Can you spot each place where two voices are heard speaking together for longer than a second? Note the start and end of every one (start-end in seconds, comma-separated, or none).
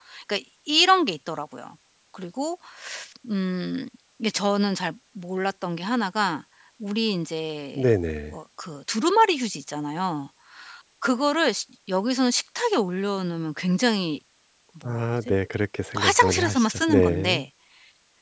16.0-17.4